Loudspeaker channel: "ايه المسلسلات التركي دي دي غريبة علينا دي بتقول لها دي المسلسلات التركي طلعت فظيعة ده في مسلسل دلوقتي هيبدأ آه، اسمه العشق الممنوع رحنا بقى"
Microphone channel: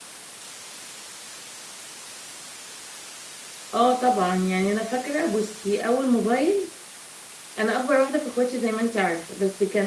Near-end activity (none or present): present